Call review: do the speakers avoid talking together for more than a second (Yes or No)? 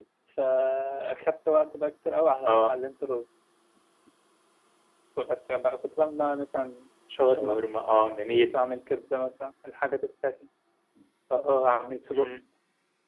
Yes